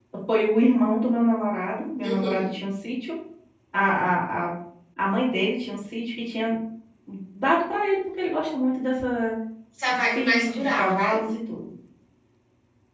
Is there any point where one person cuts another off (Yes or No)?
Yes